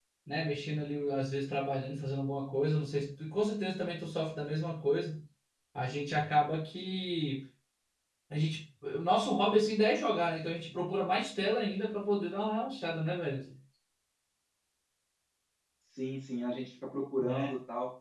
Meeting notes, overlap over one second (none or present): none